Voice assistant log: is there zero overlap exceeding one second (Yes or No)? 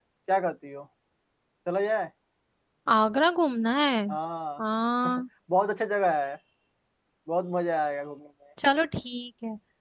Yes